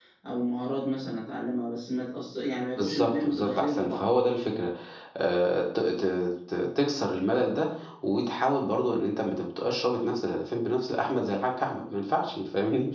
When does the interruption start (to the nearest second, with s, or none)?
3 s